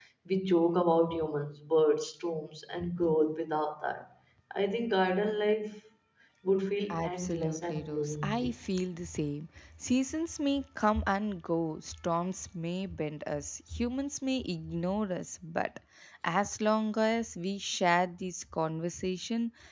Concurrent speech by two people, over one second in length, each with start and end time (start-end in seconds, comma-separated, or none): 6.9-8.6